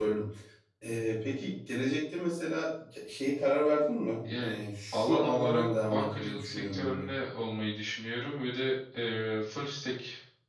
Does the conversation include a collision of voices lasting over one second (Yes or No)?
Yes